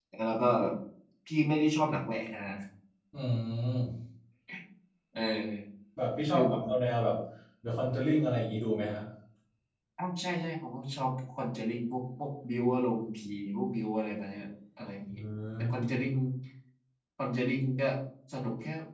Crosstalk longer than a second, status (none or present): none